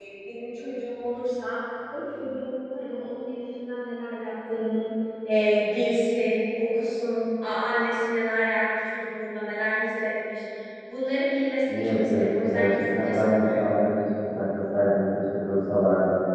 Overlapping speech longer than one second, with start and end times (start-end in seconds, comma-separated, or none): 11.7-13.7